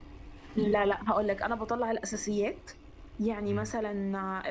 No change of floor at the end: Yes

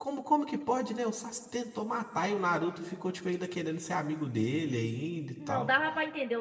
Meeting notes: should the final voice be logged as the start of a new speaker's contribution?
Yes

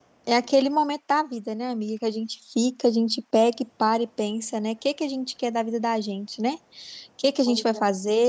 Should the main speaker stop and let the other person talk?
No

